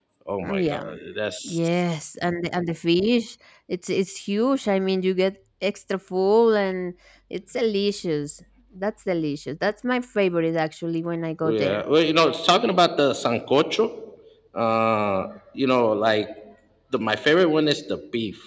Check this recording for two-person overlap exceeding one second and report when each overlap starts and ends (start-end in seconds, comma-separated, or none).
none